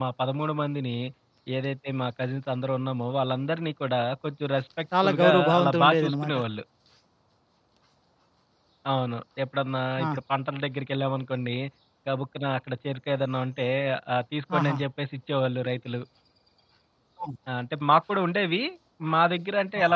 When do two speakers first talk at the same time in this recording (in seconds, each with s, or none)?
5.0 s